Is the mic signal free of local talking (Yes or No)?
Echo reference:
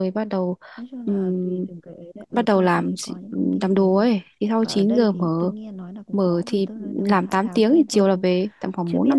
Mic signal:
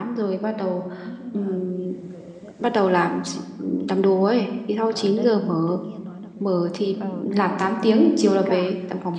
No